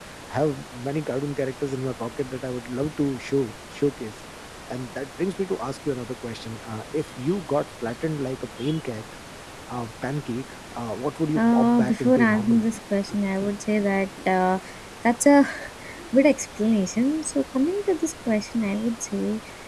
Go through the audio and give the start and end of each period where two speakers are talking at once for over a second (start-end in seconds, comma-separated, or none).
11.3-12.6